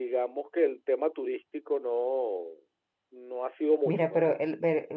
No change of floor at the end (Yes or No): No